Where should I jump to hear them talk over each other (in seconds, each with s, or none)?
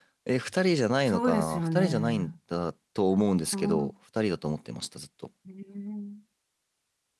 1.1 s